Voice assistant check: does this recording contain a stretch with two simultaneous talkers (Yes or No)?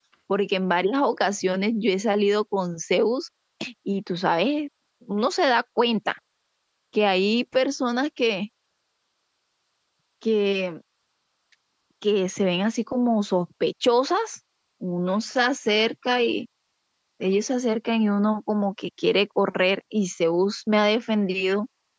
No